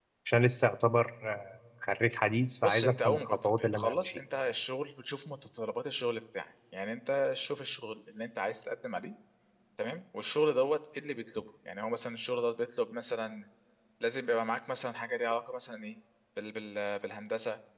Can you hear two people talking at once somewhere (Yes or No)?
Yes